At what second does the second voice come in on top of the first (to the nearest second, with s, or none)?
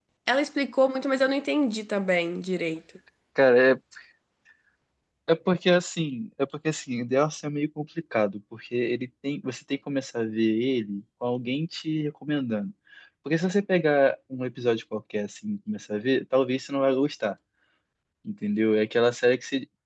none